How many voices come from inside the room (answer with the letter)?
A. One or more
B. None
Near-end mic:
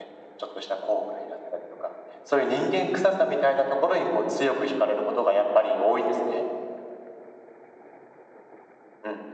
B